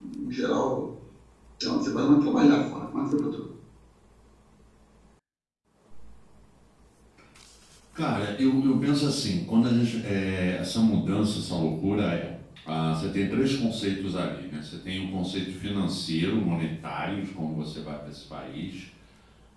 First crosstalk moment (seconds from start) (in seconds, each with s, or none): none